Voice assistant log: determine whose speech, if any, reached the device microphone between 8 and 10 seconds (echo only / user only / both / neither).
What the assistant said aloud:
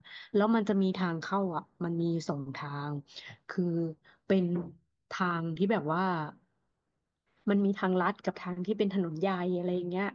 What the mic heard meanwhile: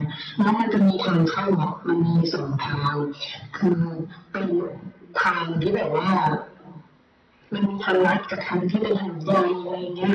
echo only